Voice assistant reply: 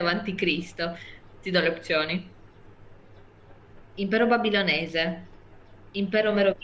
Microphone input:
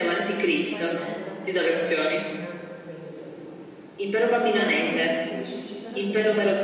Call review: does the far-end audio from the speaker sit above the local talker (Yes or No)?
Yes